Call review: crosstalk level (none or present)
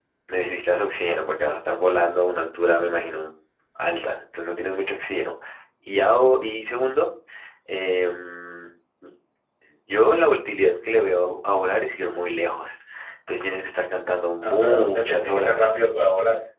present